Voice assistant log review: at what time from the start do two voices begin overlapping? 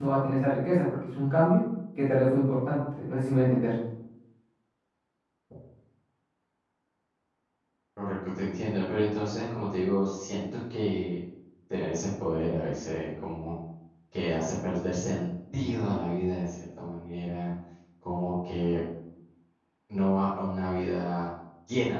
none

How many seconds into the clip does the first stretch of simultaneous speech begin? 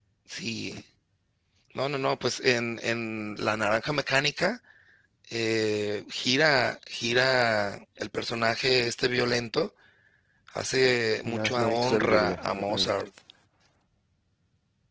11.2 s

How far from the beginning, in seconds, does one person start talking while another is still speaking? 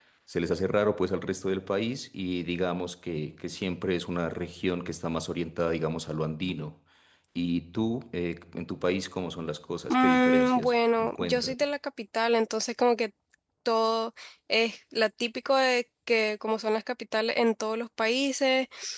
9.9 s

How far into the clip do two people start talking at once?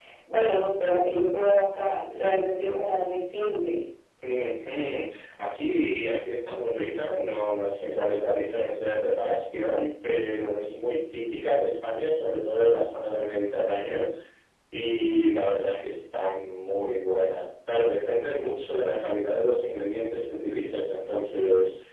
none

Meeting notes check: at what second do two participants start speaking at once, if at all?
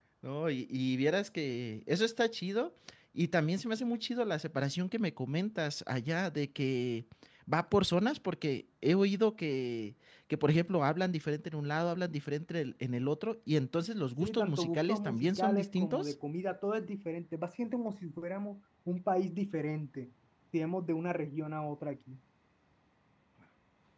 14.2 s

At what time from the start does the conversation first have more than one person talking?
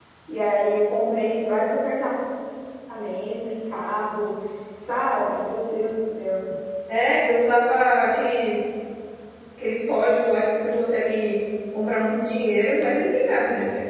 none

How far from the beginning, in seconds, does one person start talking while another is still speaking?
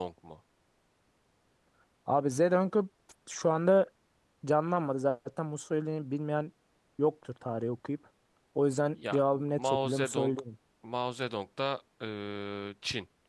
9.1 s

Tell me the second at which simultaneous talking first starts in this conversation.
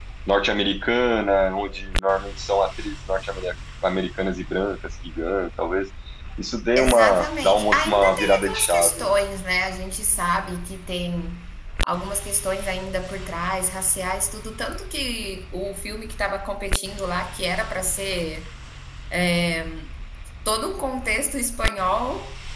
6.8 s

